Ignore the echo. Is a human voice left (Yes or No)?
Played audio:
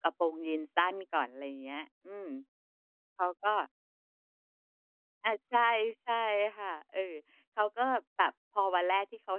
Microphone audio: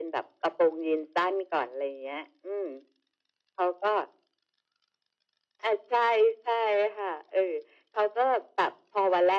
No